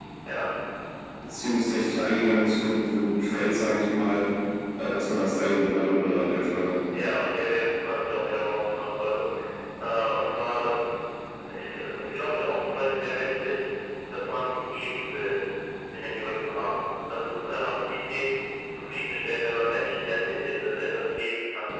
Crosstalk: none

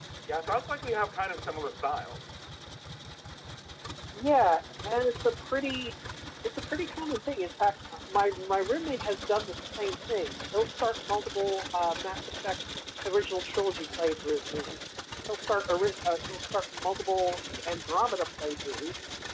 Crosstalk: none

